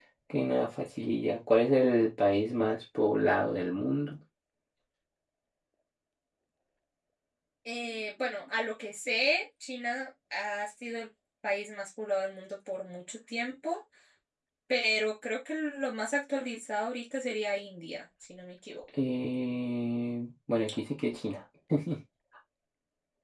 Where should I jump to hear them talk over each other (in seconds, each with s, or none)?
none